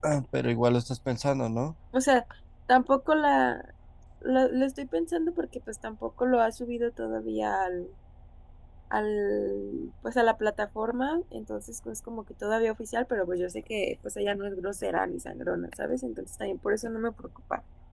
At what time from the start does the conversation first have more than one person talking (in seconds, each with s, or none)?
none